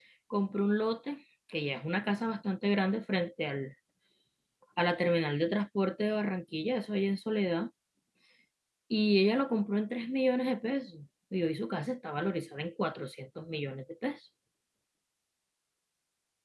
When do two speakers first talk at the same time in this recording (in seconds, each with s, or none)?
none